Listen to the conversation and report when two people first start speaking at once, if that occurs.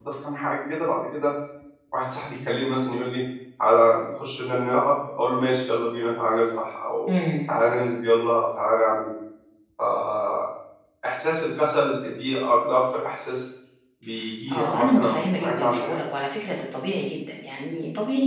15 s

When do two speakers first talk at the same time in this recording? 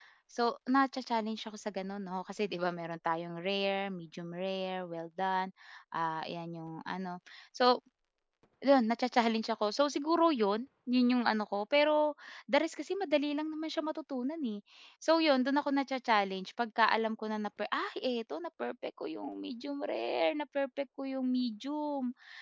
none

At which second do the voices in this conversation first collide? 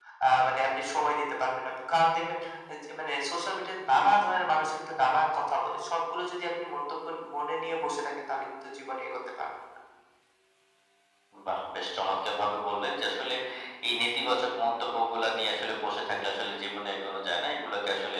none

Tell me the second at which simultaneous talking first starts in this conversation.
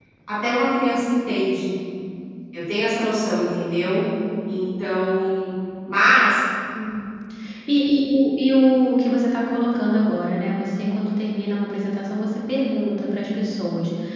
none

